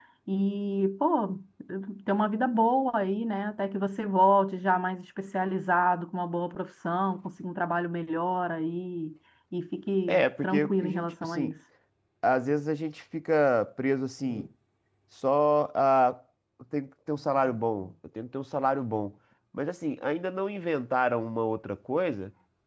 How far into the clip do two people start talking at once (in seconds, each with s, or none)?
10.1 s